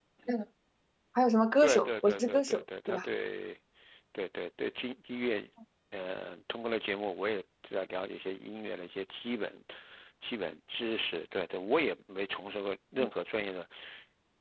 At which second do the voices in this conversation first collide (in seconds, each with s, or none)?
1.6 s